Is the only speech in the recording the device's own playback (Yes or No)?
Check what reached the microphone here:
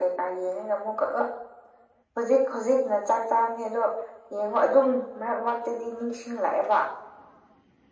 Yes